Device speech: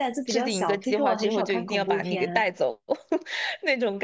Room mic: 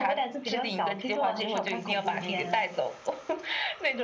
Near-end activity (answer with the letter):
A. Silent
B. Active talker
A